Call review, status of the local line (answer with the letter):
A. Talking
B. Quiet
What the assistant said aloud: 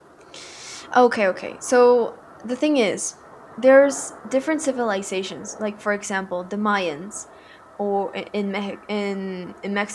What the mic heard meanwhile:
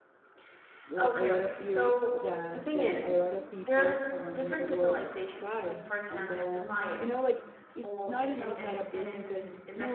A